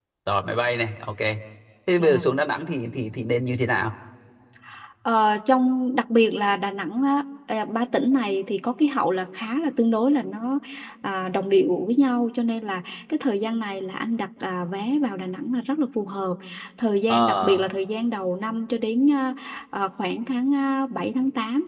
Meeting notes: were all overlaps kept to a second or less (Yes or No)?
Yes